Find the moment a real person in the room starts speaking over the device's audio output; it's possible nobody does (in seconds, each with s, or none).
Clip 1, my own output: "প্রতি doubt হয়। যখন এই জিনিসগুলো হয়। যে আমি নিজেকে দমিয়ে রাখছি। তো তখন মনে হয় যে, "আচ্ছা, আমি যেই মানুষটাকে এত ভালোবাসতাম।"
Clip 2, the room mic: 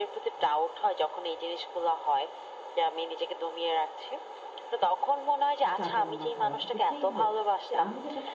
5.8 s